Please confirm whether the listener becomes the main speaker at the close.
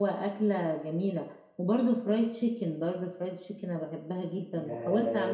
Yes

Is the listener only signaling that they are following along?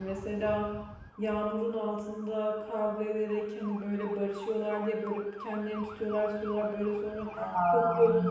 Yes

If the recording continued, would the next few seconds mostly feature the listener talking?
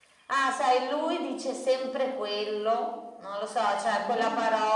No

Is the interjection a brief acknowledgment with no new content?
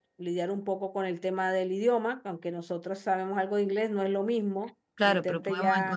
No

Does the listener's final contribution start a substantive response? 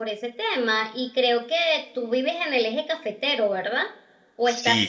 Yes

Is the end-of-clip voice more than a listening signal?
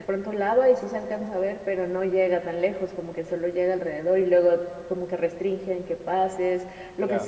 No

